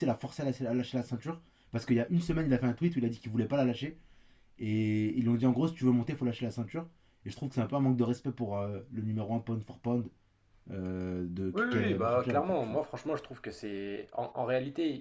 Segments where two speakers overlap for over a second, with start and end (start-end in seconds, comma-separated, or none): 11.5-12.8